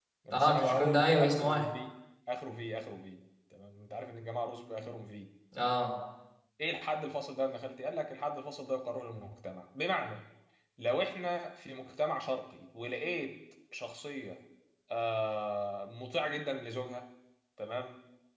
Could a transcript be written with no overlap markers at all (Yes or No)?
No